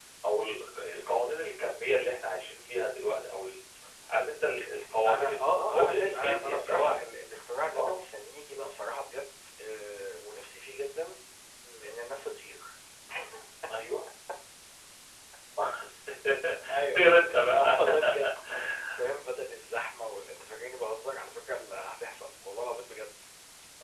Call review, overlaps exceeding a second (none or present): present